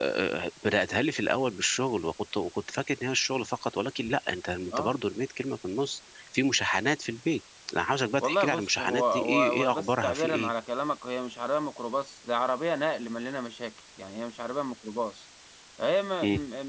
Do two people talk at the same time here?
Yes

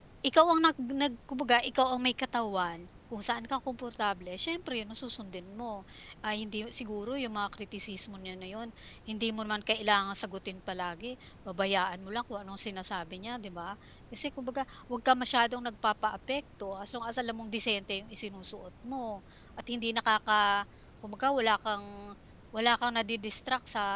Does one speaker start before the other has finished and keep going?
No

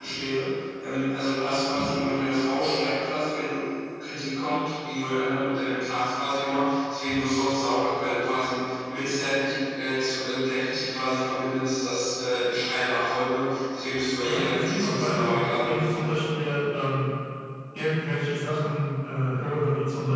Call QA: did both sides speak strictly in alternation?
No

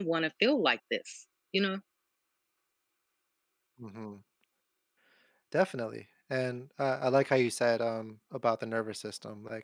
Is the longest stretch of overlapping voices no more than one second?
Yes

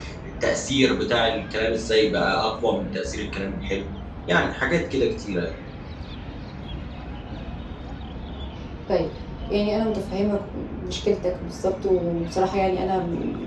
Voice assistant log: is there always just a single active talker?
Yes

